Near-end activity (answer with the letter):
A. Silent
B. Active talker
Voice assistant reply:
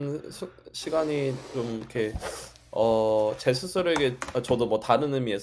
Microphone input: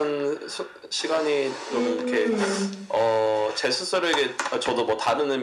B